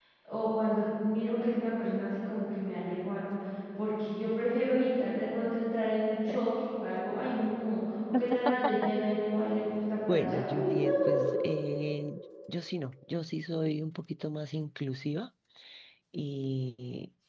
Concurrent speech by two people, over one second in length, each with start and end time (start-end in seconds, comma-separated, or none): 10.1-11.4